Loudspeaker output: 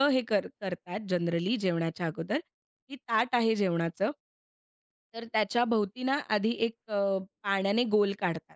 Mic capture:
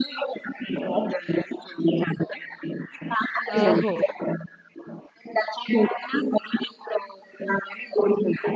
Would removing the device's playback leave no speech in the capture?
No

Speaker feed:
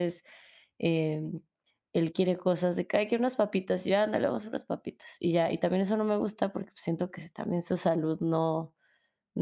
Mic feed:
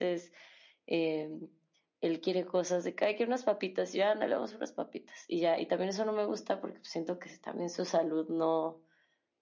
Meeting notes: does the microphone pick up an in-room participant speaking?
No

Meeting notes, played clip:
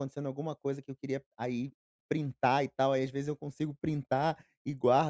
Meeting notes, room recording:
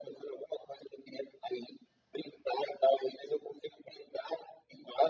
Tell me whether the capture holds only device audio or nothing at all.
Yes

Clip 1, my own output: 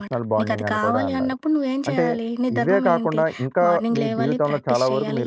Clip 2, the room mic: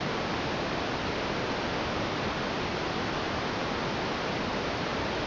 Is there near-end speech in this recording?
No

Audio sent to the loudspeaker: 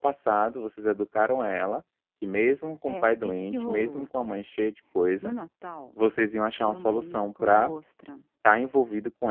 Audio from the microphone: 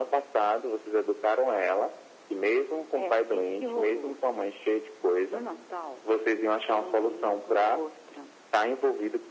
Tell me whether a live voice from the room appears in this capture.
No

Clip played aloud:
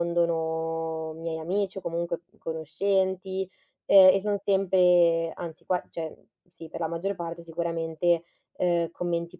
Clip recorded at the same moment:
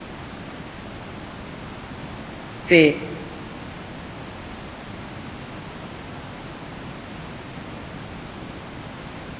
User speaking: Yes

